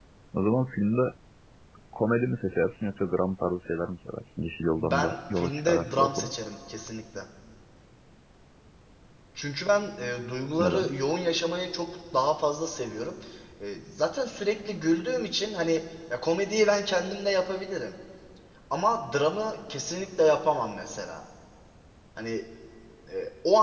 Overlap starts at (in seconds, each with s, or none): 4.8 s